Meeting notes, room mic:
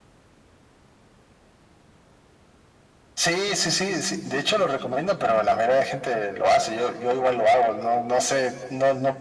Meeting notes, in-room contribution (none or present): none